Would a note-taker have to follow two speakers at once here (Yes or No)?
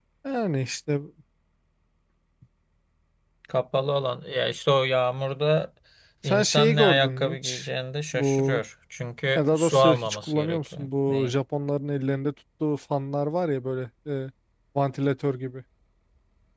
Yes